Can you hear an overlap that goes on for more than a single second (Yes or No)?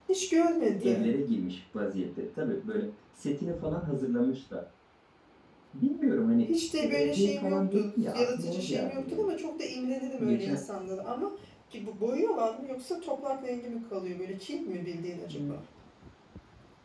Yes